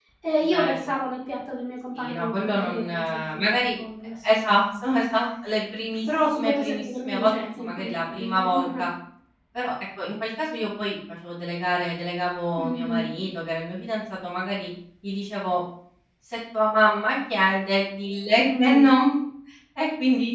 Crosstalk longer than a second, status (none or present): present